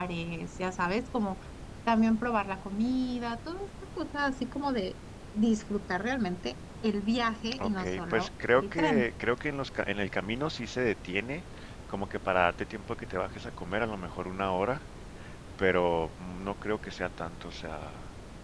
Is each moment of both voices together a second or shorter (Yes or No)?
No